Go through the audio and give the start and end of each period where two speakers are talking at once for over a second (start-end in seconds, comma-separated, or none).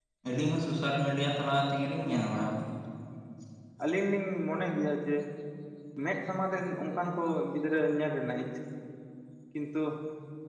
none